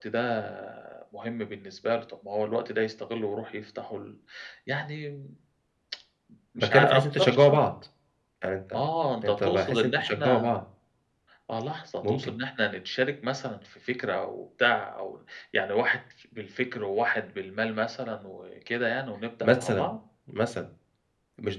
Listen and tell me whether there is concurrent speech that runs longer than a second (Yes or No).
Yes